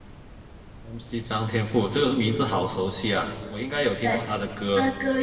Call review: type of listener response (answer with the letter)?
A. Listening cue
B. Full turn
B